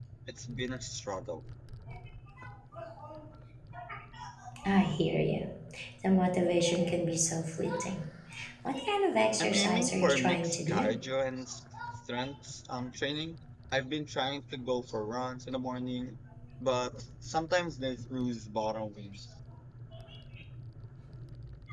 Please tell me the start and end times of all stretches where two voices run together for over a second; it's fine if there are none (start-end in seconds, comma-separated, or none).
9.4-10.9